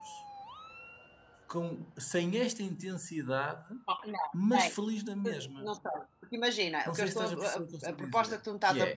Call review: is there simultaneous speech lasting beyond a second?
Yes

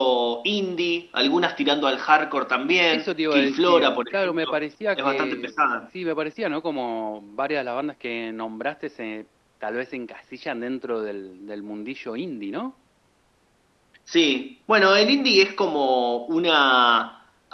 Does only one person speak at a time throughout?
No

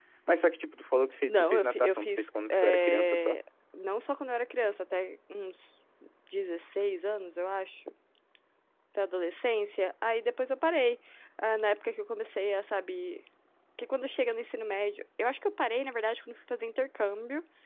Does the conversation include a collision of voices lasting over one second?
Yes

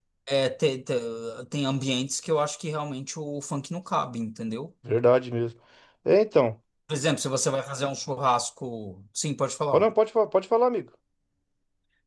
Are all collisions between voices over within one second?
Yes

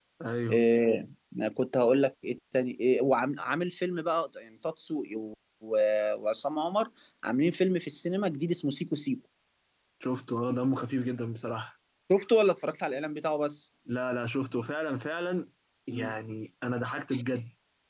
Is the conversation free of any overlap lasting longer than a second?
Yes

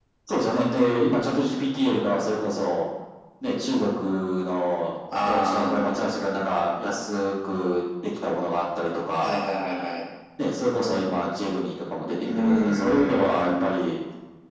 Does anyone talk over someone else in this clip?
Yes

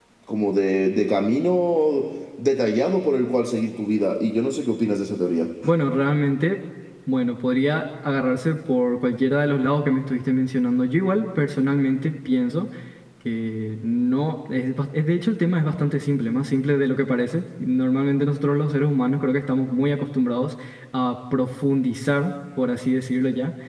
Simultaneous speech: No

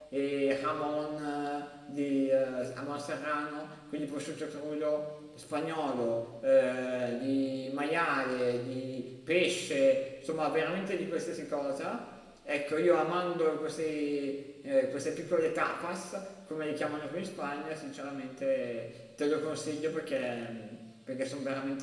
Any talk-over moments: No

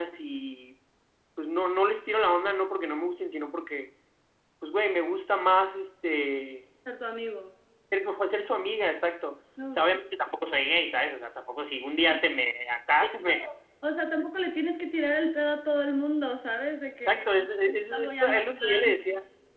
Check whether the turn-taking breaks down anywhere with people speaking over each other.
Yes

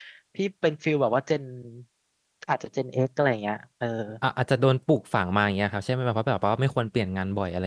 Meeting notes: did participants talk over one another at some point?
No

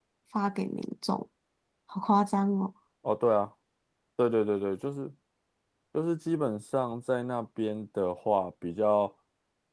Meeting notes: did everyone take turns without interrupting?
Yes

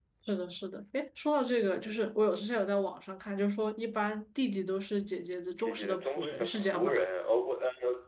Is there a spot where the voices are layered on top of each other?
Yes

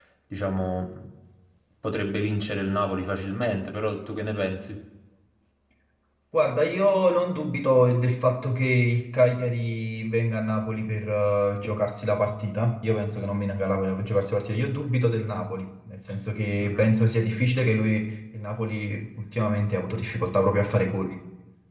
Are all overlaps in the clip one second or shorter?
Yes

